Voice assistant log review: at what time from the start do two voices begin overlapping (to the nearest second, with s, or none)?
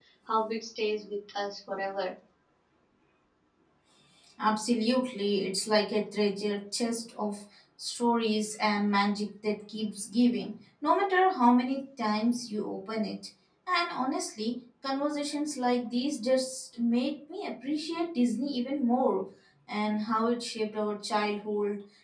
none